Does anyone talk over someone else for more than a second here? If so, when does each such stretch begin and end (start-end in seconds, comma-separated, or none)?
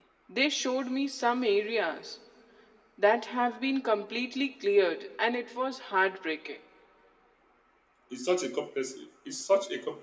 none